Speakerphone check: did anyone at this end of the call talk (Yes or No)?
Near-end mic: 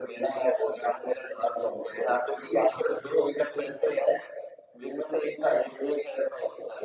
No